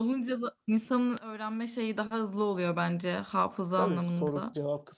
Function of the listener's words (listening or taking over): taking over